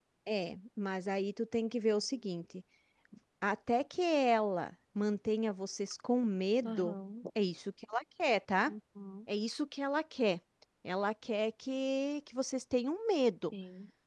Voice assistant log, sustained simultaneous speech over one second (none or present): none